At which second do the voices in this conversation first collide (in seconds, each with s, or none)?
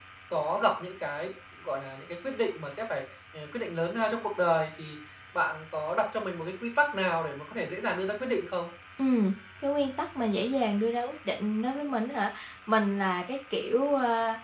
none